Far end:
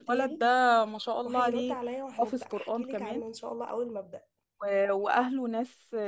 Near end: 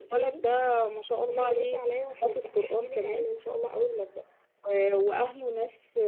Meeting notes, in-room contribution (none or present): none